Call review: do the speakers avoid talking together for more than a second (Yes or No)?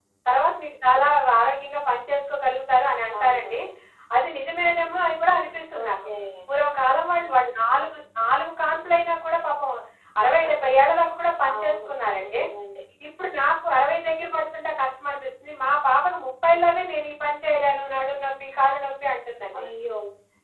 Yes